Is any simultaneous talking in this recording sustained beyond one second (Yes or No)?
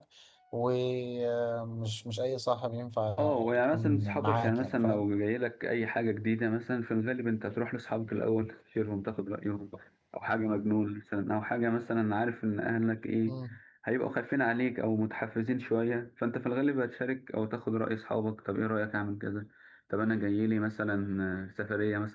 Yes